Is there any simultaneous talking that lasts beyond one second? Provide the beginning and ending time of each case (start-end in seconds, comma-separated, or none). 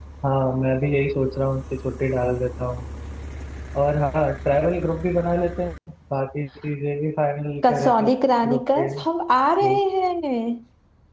7.6-8.9